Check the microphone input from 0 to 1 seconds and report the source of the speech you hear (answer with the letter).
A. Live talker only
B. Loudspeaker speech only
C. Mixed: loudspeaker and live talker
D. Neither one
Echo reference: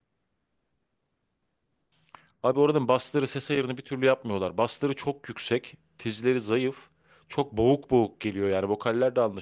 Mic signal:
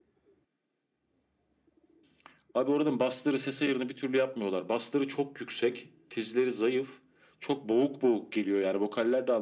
D